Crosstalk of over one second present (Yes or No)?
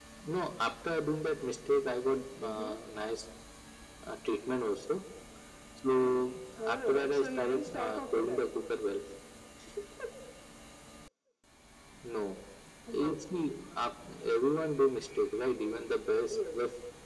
Yes